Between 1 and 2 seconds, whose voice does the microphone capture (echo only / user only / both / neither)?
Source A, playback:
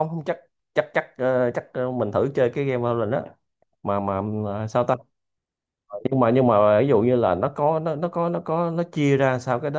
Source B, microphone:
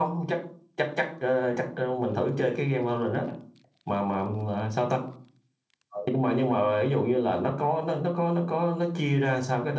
echo only